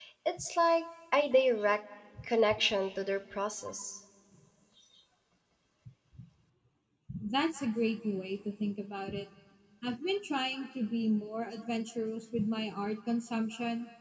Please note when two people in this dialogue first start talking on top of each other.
none

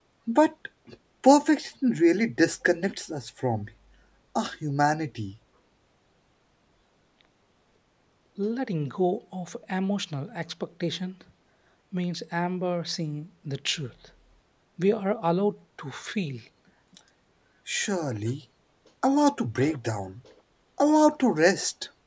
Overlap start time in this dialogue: none

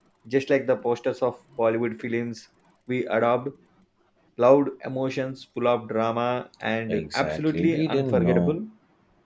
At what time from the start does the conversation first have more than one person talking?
6.9 s

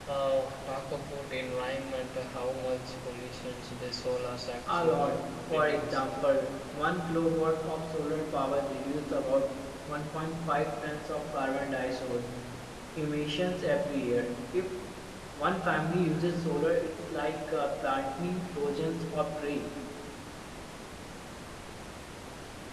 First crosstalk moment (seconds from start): 4.7 s

